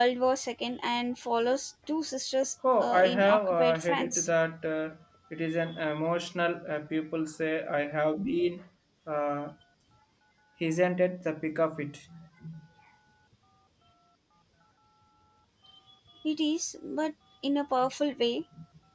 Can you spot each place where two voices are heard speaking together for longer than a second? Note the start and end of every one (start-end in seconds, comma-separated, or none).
2.8-4.3